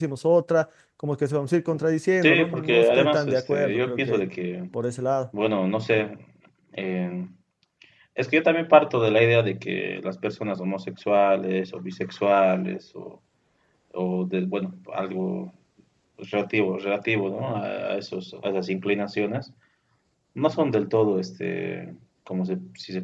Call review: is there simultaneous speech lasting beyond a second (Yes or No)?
Yes